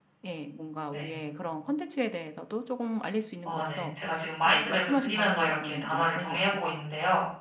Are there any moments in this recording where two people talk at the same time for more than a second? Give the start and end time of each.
4.5-6.7

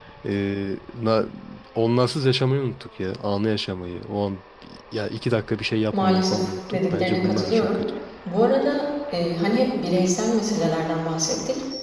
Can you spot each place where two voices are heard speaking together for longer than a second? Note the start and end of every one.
5.9-7.8

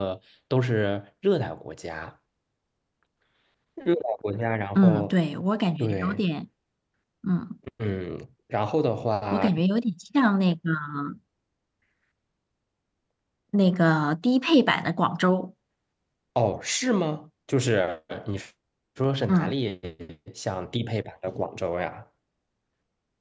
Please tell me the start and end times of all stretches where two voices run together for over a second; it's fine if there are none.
none

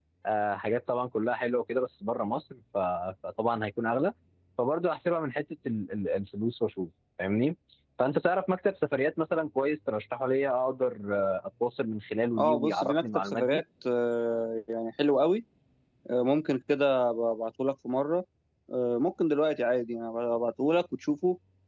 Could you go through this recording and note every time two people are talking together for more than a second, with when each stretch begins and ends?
12.4-13.6

